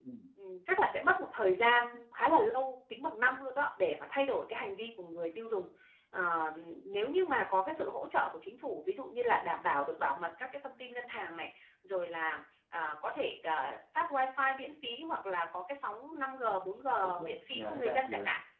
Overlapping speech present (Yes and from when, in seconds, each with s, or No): Yes, from 17.0 s